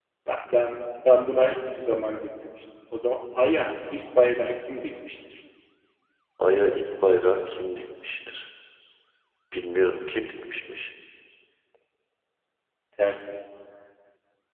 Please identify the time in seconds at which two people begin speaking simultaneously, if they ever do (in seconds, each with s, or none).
none